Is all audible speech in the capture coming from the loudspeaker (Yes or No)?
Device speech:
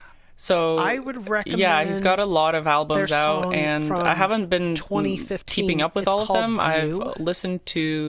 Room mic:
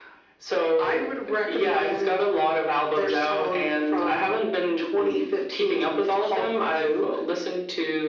Yes